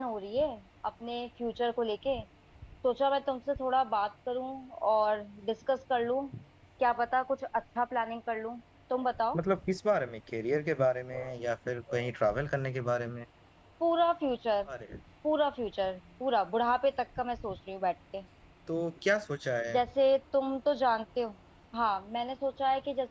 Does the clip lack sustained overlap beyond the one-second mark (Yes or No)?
Yes